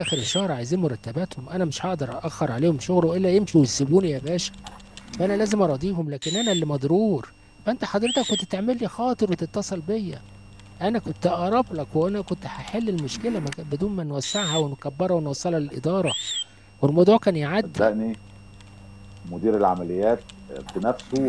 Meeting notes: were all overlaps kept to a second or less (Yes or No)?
Yes